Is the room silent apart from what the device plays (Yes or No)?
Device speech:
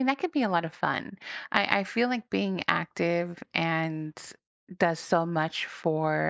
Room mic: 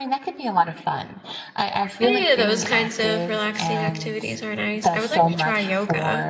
No